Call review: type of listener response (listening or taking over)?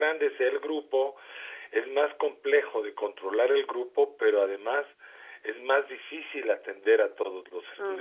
taking over